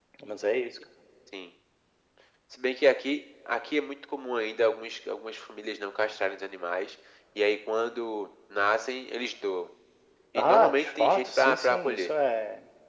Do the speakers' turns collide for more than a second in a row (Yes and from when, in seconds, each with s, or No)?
Yes, from 10.3 s